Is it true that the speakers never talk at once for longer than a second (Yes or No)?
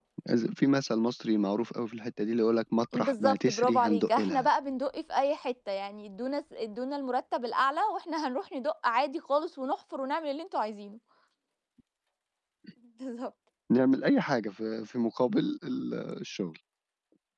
No